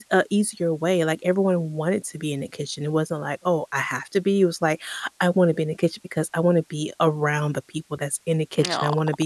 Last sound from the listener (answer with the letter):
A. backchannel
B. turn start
A